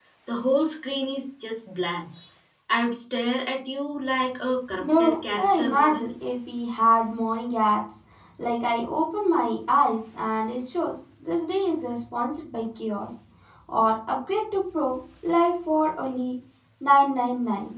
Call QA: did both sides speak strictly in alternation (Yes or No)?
No